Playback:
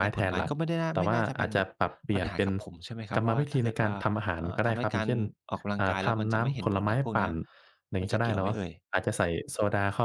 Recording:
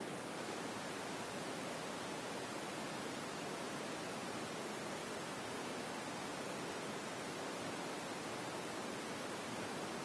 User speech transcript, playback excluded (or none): none